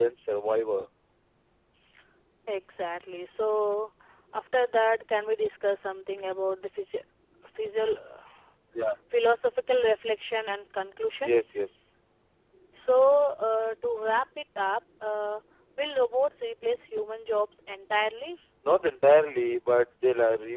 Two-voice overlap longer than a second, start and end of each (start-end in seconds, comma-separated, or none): none